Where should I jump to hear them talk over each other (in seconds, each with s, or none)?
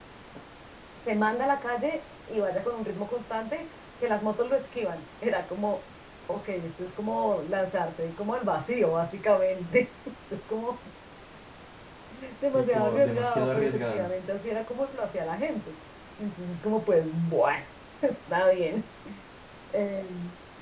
12.5 s